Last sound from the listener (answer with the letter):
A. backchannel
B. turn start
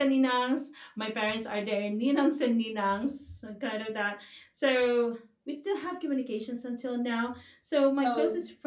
A